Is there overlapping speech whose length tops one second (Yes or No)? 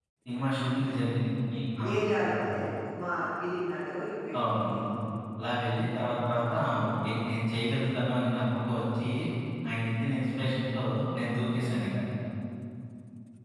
No